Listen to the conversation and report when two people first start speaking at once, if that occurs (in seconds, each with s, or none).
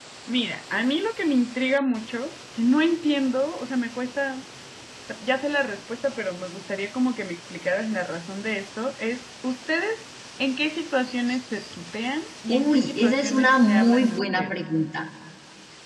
12.5 s